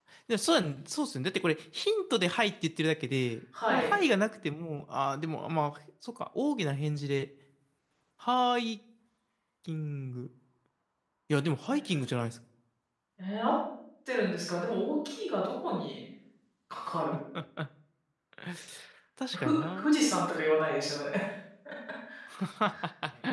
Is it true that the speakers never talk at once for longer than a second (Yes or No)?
Yes